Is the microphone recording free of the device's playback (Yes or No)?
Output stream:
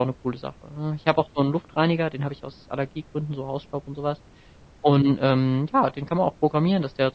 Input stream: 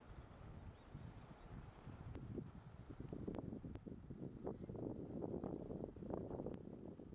Yes